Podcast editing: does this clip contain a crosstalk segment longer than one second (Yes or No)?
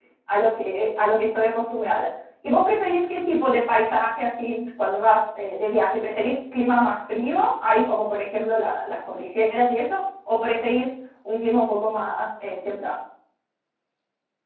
No